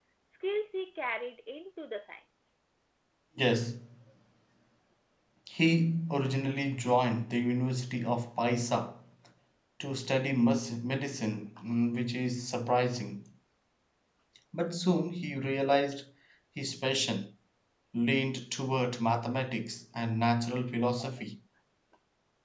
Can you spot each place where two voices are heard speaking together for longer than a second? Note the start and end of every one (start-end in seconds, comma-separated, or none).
none